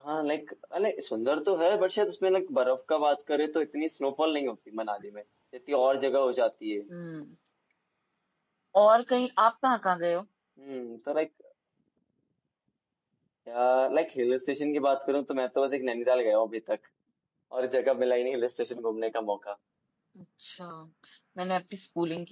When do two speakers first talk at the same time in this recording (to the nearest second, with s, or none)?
none